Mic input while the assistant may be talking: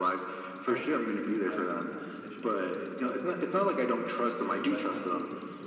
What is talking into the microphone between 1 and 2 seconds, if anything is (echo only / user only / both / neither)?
both